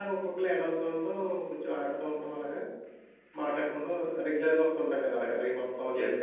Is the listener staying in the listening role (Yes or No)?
No